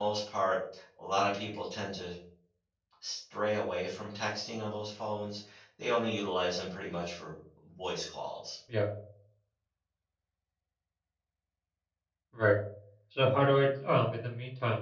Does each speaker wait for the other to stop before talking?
Yes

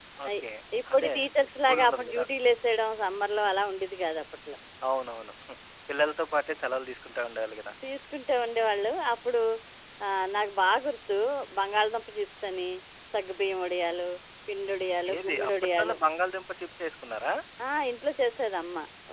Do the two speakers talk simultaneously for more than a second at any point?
Yes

